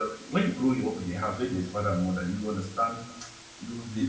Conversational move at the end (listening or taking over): listening